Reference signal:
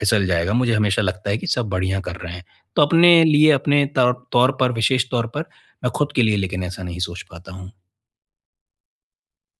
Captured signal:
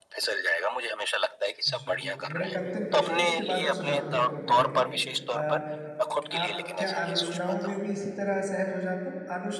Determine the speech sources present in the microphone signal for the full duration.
both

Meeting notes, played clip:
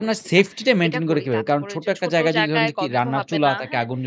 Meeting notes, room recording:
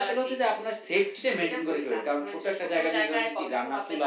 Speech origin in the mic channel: echo only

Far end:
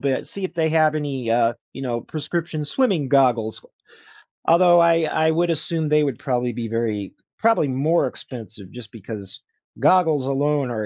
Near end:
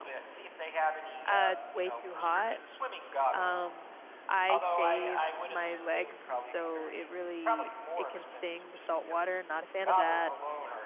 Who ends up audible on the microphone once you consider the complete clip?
both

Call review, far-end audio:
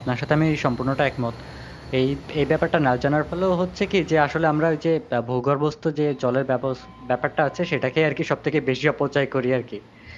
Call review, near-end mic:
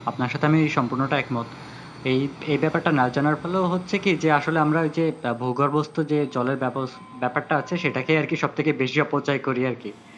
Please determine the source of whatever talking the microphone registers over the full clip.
echo only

